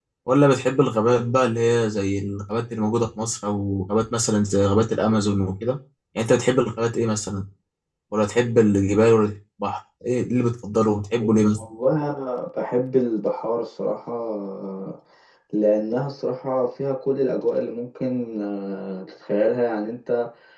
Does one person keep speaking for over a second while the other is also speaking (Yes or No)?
No